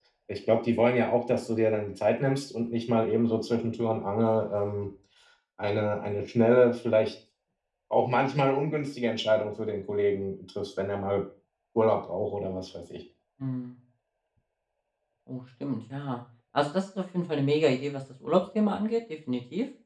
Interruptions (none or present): none